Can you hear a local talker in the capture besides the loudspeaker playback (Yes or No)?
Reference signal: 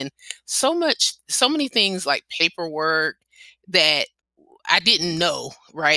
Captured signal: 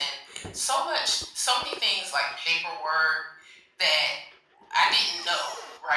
No